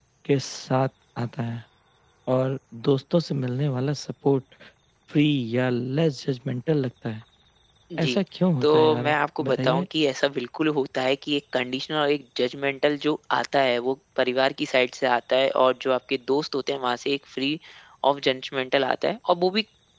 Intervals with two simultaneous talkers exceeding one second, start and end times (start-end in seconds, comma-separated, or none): 8.6-9.8